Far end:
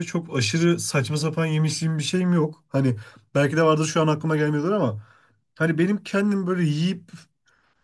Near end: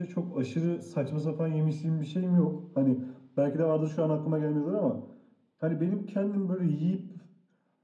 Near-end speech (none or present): none